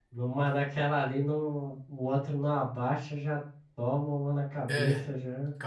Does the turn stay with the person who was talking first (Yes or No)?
No